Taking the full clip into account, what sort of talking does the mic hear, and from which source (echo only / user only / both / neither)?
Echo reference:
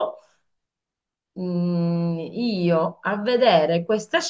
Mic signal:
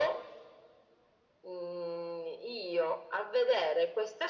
echo only